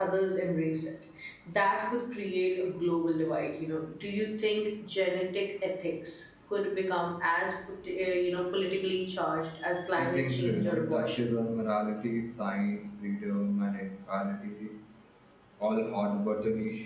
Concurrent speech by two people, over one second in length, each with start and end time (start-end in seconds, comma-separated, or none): 10.0-11.3